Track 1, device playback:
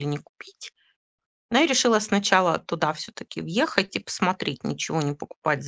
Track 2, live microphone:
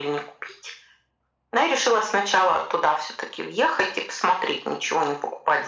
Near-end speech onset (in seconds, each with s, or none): none